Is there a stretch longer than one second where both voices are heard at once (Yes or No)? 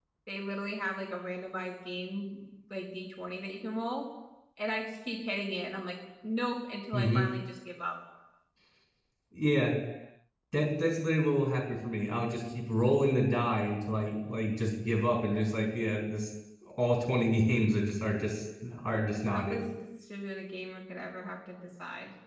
No